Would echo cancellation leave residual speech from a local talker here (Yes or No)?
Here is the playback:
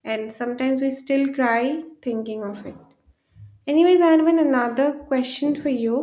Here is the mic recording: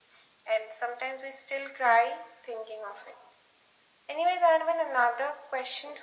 No